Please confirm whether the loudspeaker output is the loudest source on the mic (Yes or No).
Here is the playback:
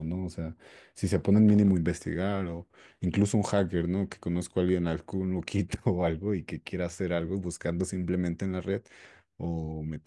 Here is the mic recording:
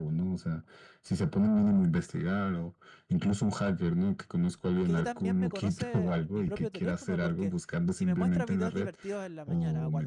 Yes